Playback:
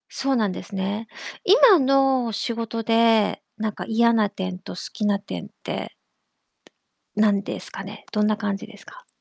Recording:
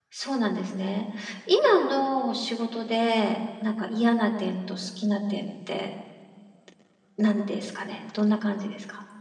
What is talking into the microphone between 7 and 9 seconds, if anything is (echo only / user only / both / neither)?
echo only